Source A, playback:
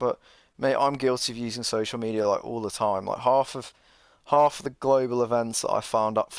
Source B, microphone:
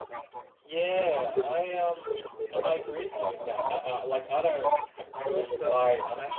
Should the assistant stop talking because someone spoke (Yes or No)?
Yes